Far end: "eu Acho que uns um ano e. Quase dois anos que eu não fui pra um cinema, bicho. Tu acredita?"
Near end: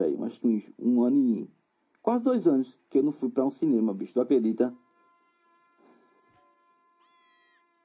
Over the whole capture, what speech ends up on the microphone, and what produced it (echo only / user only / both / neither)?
echo only